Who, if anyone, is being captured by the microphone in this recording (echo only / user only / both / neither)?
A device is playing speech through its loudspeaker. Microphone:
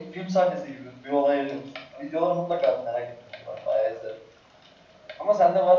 echo only